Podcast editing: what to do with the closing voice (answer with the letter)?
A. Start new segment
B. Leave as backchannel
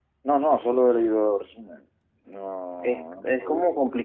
A